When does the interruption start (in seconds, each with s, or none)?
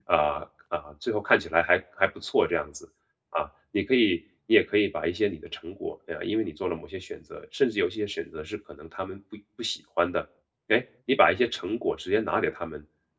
none